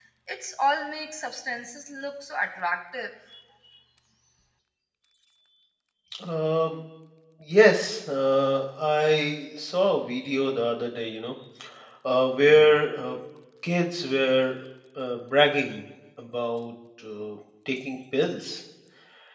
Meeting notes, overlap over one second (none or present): none